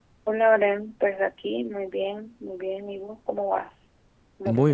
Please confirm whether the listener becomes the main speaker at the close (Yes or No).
Yes